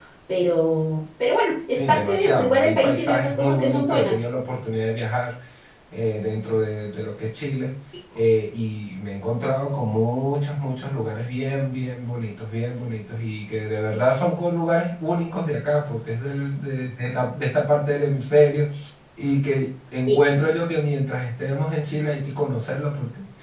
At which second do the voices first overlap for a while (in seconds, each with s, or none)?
1.8 s